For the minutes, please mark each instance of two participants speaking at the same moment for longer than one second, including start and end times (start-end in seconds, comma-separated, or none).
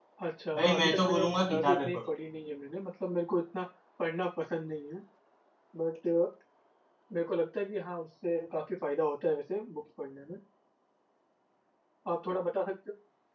0.6-2.1